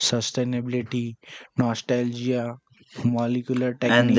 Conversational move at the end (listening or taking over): taking over